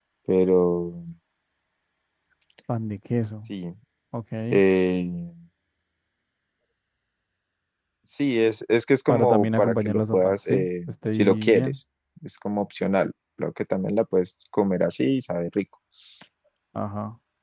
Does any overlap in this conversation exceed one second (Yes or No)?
Yes